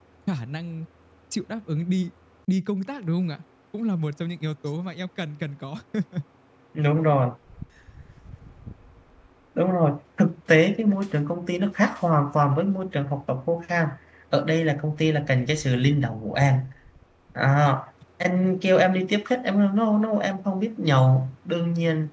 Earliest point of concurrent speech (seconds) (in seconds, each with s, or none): none